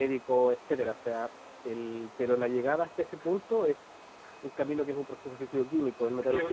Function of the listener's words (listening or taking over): listening